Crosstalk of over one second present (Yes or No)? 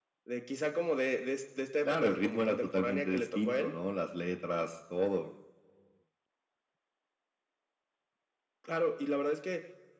Yes